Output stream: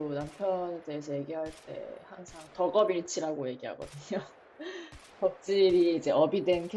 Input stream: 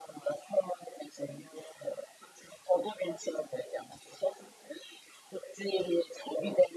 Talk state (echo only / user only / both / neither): echo only